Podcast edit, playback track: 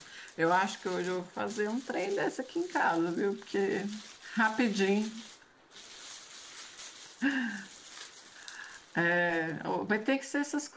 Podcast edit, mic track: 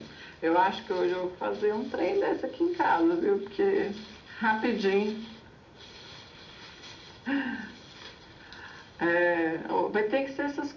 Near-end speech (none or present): none